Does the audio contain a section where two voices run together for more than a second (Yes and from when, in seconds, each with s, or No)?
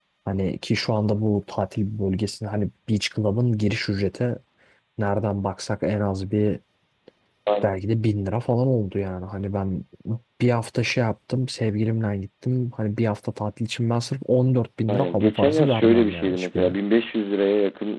Yes, from 14.9 s